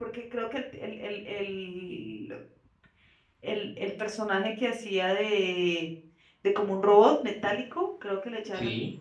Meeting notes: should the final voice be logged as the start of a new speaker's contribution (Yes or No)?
No